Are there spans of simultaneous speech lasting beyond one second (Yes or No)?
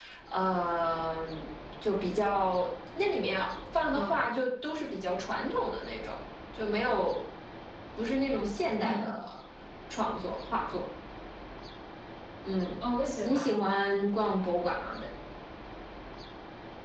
No